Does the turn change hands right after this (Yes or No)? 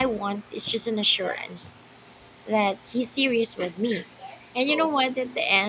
No